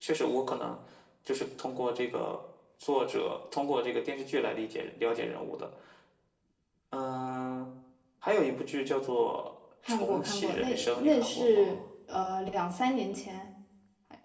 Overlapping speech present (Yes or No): Yes